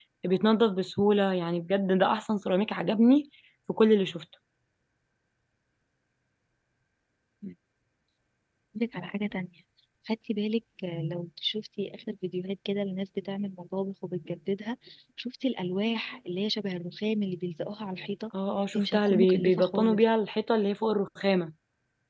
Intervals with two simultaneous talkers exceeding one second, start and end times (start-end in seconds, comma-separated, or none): 18.8-20.0